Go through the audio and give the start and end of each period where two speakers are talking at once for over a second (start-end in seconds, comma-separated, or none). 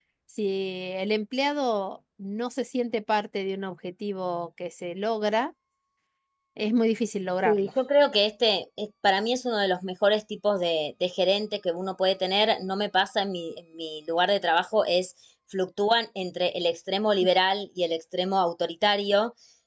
none